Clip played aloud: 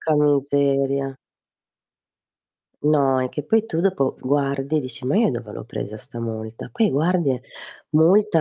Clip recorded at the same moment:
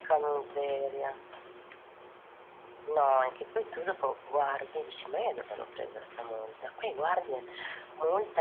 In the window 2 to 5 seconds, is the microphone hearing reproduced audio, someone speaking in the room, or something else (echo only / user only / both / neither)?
echo only